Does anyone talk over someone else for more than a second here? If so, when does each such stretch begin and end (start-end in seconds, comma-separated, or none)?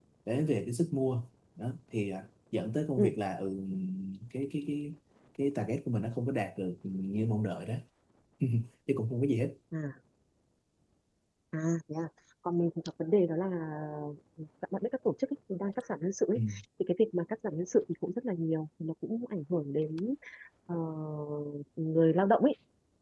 none